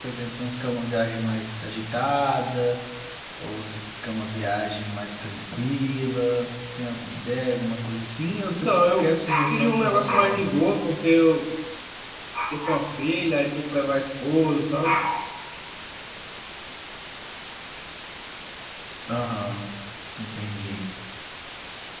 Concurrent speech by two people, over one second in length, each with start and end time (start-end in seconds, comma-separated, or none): 8.5-10.6